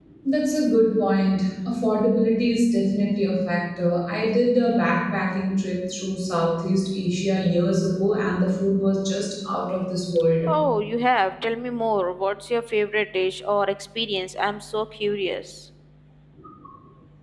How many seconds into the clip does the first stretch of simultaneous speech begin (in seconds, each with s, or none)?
none